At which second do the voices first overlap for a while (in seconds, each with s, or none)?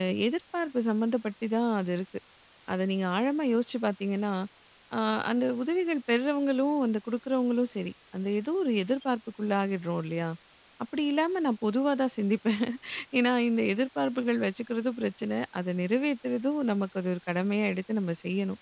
none